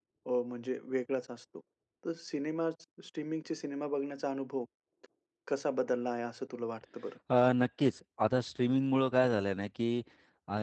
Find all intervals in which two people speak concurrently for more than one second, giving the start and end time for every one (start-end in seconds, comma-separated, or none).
none